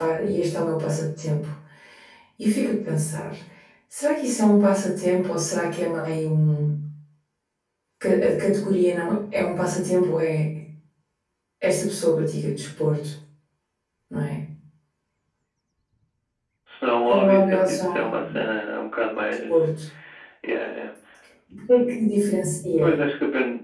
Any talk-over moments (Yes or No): Yes